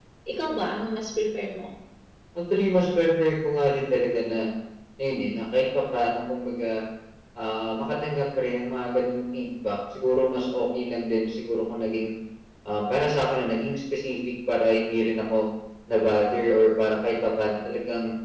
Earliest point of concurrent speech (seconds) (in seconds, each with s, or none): none